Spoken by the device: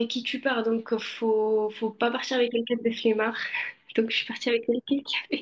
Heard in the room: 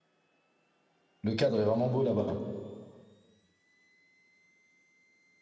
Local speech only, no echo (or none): Le cadre est vraiment beau là-bas.